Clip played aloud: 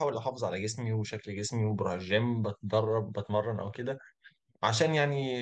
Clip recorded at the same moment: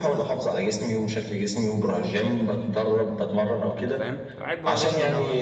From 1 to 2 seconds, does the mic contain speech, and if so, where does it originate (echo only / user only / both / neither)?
echo only